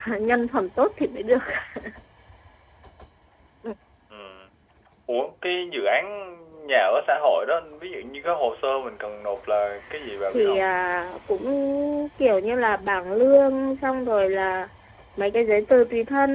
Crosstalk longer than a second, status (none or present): none